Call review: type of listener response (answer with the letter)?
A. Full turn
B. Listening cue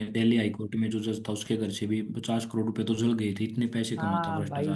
A